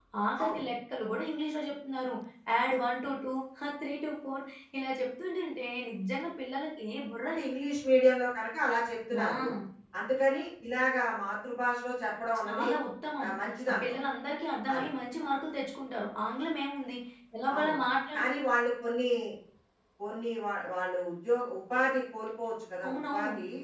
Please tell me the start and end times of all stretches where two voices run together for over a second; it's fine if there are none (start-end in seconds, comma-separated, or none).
none